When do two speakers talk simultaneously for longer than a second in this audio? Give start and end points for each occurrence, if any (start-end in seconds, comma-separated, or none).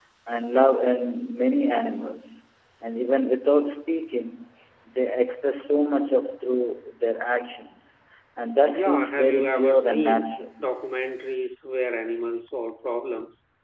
8.7-10.4